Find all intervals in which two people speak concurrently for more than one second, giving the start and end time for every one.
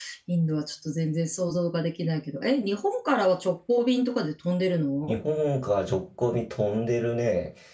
none

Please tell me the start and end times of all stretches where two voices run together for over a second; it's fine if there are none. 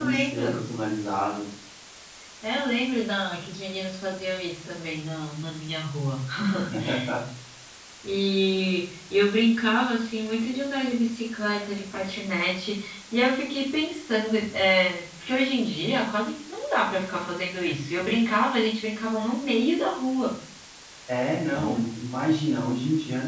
none

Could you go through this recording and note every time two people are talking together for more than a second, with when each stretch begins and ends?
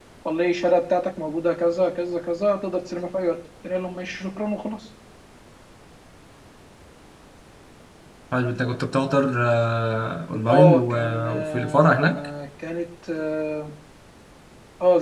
10.5-12.2

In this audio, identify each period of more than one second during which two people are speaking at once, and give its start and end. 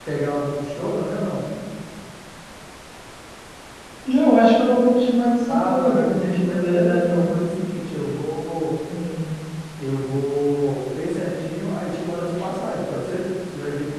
5.5-7.3

